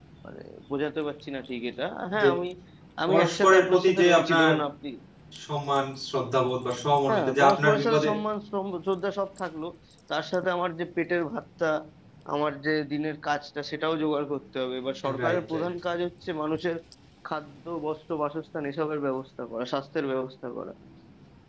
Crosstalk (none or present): present